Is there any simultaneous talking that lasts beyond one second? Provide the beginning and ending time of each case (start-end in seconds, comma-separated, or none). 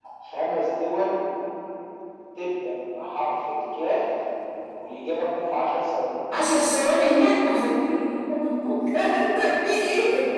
none